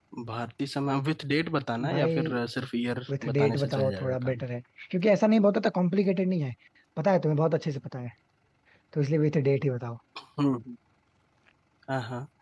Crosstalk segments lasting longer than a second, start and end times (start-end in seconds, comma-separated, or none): 3.2-4.4